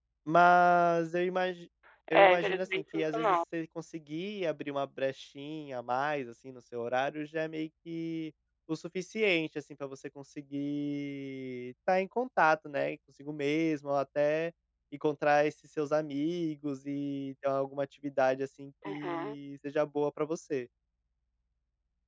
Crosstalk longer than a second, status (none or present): present